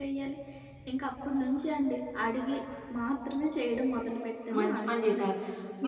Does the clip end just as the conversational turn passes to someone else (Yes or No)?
Yes